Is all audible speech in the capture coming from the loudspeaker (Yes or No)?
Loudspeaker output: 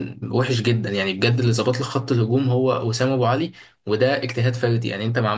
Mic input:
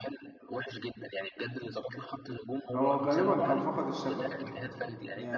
No